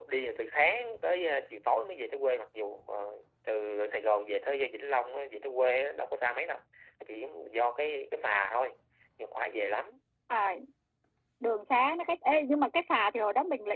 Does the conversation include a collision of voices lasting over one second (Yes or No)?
No